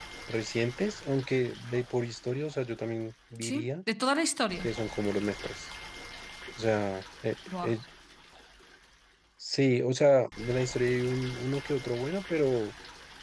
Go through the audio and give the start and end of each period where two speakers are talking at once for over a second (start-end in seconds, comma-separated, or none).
none